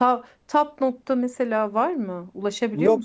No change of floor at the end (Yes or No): No